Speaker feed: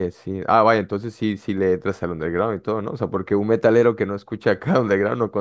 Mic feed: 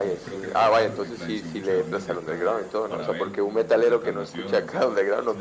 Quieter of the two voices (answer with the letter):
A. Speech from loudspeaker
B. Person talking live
B